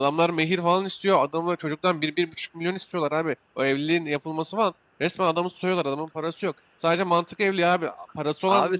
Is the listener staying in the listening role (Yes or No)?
Yes